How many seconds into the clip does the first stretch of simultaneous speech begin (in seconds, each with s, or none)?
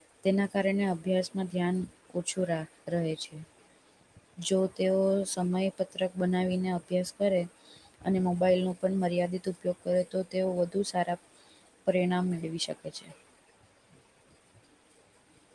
none